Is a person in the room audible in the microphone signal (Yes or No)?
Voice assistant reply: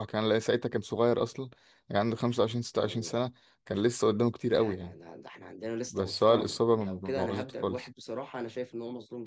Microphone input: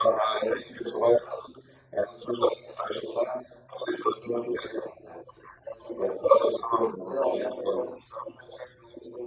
No